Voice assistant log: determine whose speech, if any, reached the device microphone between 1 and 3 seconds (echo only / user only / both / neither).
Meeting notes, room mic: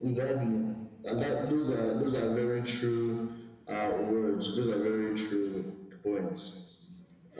echo only